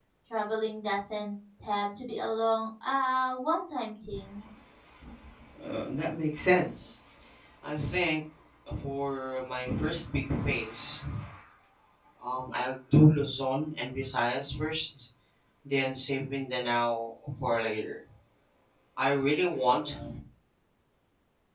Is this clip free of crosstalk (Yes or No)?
Yes